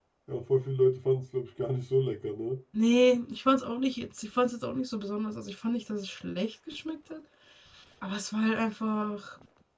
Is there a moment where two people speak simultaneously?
No

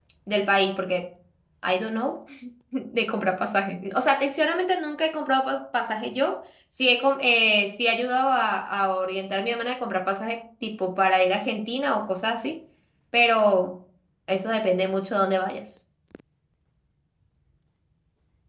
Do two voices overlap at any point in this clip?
No

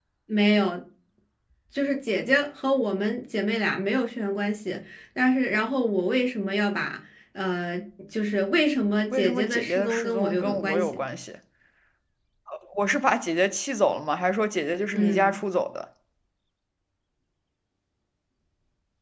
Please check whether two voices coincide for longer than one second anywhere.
Yes, from 9.1 s

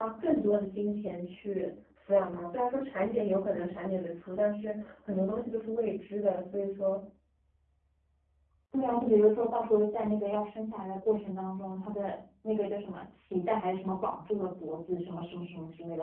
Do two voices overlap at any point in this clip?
No

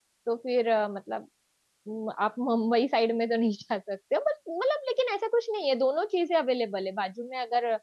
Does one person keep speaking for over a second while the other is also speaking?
No

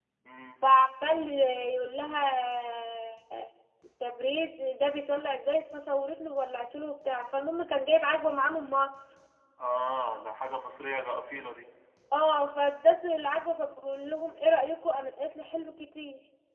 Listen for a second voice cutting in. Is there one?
No

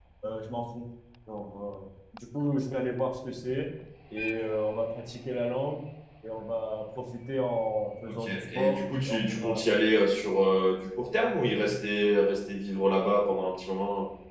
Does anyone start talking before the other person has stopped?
Yes, from 8.1 s

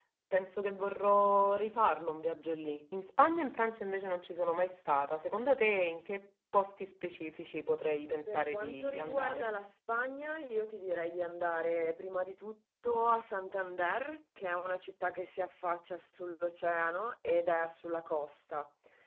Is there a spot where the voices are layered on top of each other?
Yes, from 8.3 s

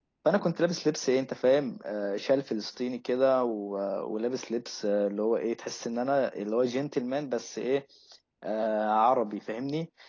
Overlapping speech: No

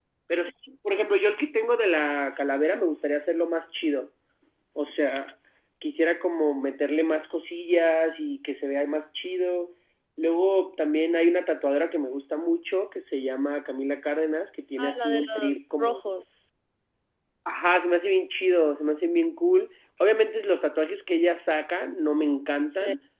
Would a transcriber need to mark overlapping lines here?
Yes, from 14.8 s

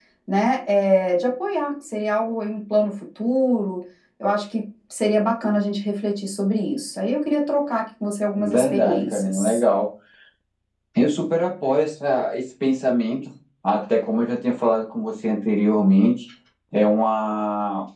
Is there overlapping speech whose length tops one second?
Yes, from 8.4 s

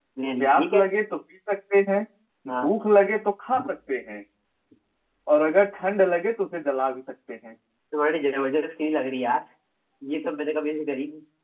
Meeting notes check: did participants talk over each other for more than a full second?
No

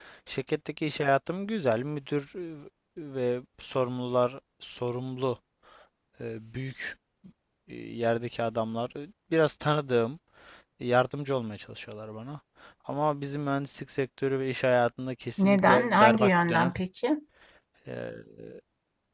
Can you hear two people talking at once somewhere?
Yes, from 15.4 s

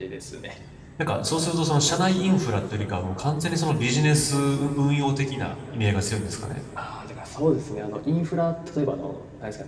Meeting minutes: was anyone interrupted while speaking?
No

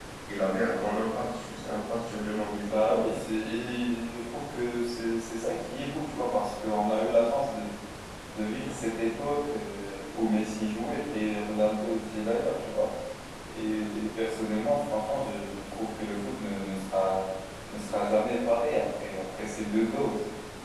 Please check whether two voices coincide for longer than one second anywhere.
No

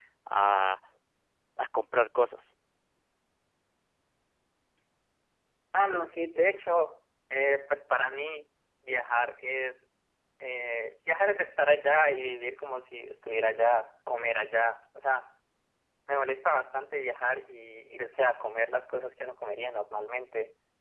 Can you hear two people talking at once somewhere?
No

